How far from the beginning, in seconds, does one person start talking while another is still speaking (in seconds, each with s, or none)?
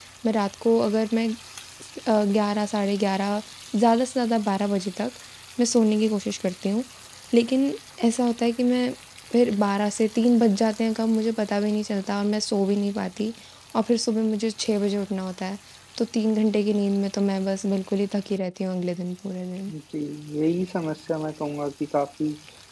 none